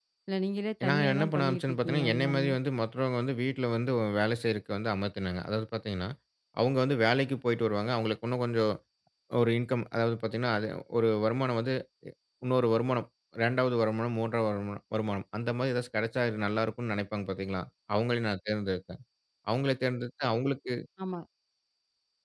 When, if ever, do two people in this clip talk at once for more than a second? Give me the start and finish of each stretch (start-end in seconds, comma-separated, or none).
0.9-2.5